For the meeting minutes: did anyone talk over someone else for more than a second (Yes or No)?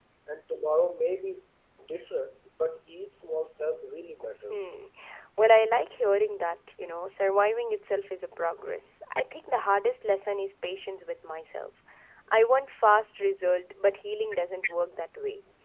No